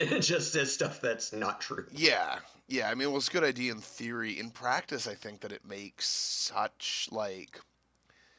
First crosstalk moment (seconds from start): none

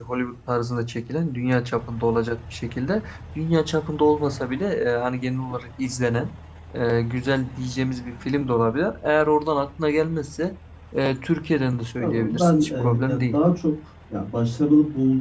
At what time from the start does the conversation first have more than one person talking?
12.0 s

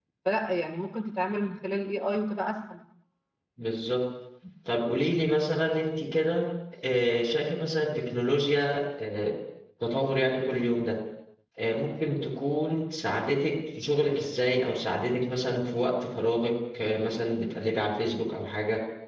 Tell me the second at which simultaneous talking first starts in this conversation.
none

